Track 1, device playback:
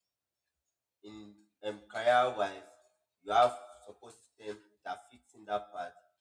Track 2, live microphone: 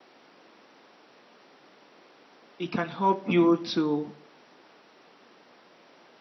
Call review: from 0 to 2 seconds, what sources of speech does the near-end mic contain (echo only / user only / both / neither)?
neither